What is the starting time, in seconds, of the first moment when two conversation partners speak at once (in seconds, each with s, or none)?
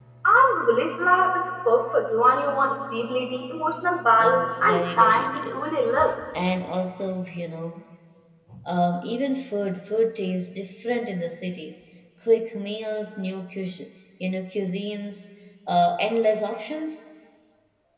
4.2 s